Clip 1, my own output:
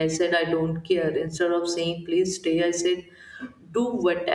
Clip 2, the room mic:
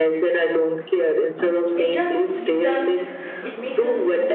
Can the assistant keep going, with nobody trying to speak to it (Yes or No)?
No